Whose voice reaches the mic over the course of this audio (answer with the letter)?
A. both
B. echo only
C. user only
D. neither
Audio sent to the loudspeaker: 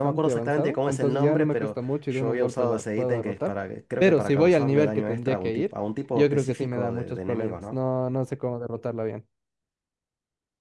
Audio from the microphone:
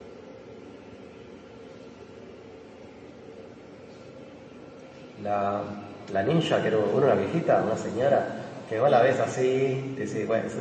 C